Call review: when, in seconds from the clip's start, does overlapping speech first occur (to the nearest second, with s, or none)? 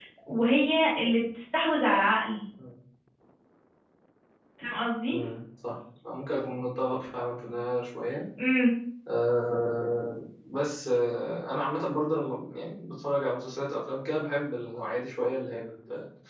none